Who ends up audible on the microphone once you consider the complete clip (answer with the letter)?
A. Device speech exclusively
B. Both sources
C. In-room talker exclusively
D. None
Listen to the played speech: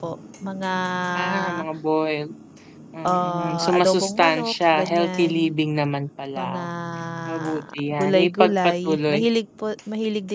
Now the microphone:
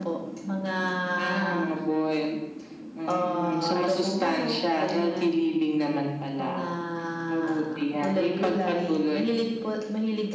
A